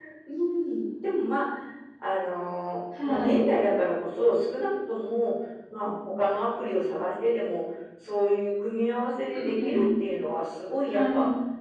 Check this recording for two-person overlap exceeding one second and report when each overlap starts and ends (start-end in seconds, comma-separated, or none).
none